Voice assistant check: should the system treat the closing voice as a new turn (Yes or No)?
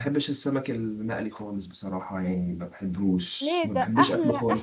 Yes